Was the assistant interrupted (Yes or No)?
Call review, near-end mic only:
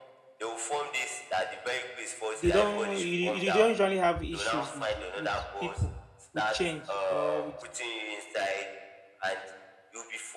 Yes